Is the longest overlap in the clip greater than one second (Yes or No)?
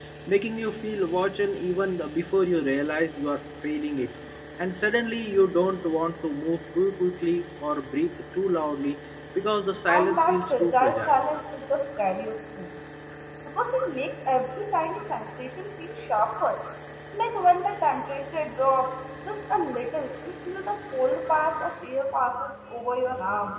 Yes